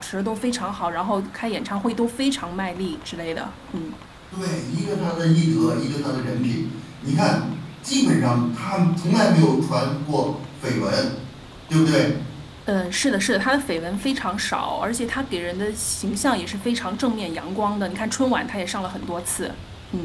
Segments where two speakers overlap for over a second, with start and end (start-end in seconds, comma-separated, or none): none